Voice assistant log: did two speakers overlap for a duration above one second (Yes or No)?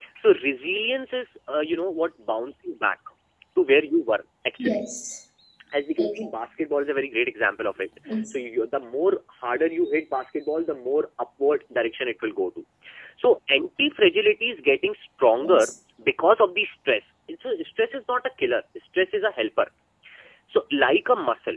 No